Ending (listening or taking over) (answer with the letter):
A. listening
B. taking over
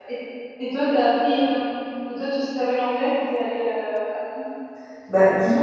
B